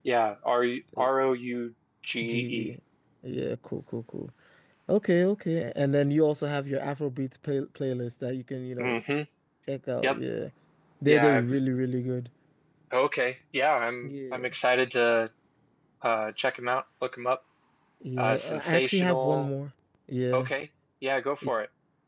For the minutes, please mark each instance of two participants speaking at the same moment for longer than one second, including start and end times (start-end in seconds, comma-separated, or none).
18.2-19.5